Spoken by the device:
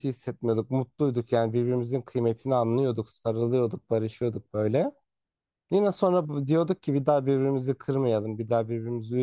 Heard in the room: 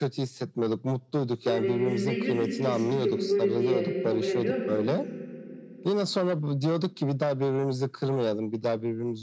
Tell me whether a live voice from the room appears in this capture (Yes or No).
Yes